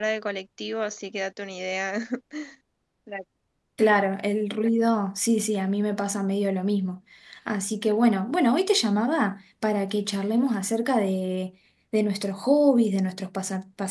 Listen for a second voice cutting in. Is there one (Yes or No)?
No